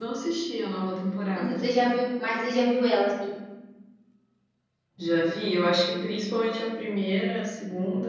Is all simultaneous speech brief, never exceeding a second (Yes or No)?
Yes